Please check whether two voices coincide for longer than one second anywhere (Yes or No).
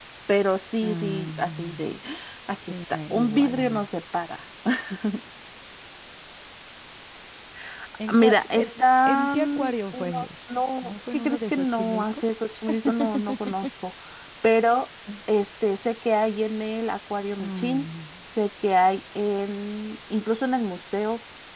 Yes